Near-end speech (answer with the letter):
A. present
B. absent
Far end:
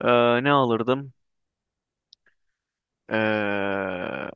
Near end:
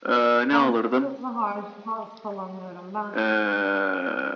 A